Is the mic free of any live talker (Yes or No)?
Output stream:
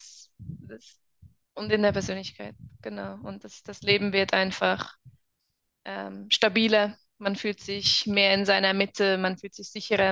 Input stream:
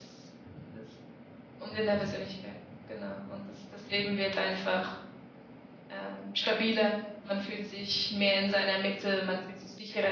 Yes